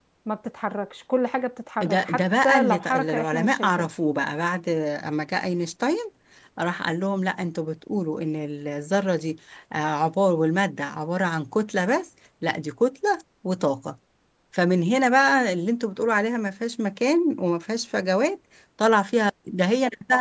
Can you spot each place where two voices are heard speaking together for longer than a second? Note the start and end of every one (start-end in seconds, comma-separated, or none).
1.8-3.9